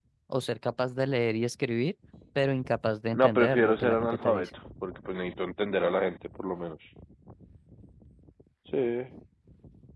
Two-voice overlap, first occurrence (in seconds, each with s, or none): 3.1 s